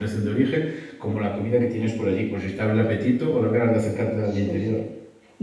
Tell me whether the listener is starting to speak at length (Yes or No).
Yes